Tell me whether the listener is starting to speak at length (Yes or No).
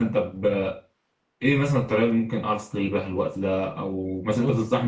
No